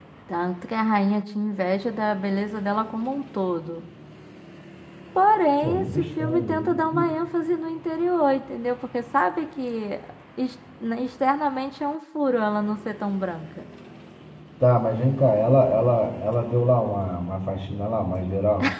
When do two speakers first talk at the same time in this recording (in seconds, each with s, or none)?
5.6 s